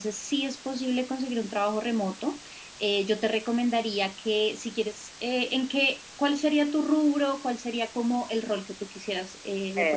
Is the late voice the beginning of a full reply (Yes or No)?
Yes